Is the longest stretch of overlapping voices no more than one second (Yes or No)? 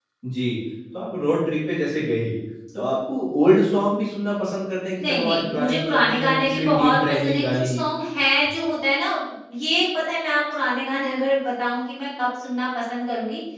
No